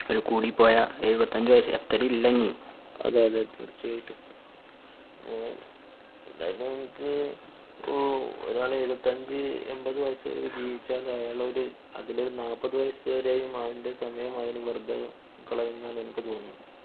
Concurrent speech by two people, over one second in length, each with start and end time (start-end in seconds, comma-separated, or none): none